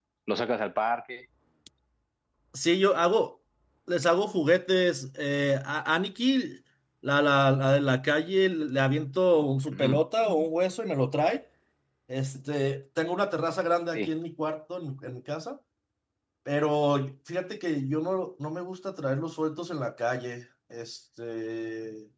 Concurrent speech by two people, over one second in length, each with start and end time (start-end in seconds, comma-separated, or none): none